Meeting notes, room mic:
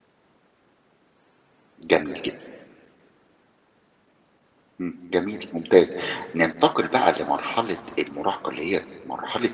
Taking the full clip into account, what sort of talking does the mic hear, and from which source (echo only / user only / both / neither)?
user only